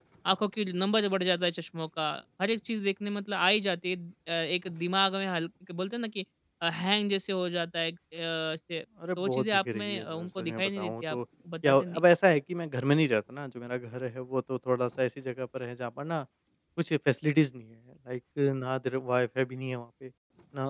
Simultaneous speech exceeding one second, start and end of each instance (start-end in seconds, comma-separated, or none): 9.2-11.2